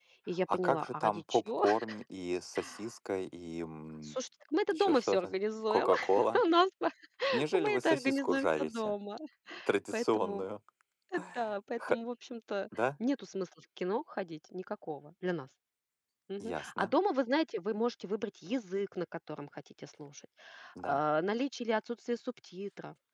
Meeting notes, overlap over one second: present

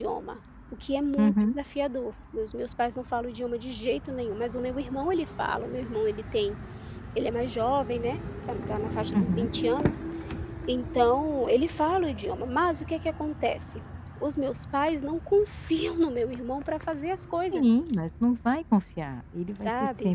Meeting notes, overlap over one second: none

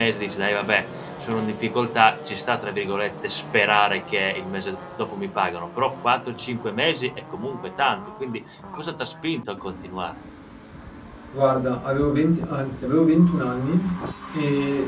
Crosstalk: none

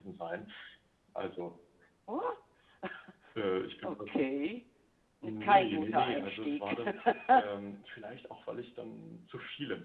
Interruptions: present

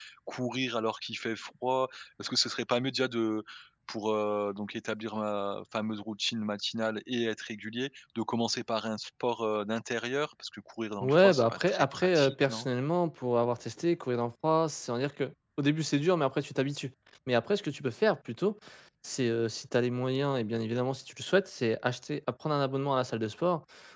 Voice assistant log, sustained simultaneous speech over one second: present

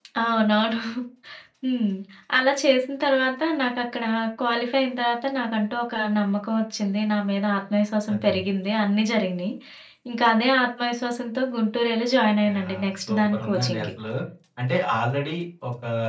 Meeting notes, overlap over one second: present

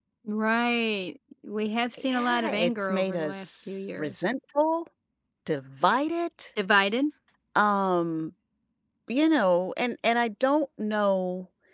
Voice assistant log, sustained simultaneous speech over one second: present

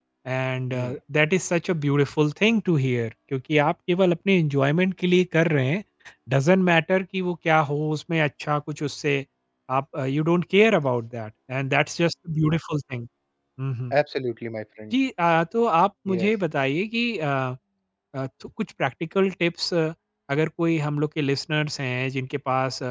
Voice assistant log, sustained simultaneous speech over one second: none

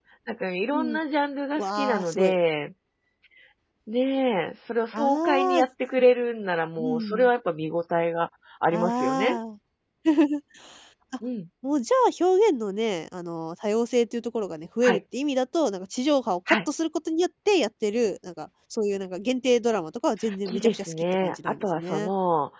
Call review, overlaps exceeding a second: present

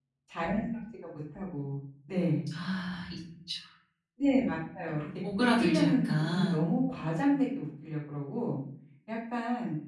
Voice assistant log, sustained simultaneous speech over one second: present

